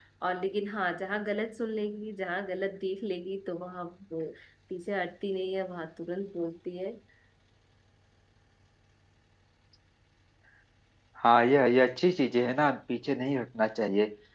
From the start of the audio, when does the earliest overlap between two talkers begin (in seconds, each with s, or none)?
none